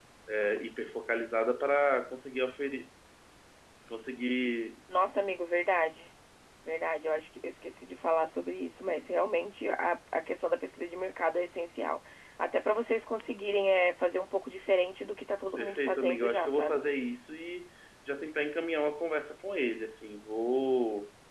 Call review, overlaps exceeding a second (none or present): present